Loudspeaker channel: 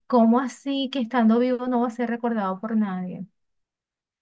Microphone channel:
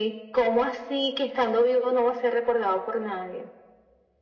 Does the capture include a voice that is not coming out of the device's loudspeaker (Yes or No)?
No